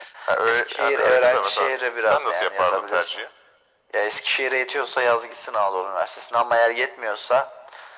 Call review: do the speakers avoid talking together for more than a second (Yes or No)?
No